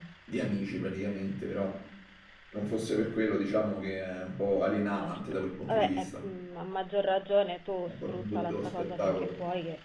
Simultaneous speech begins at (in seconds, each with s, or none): 4.9 s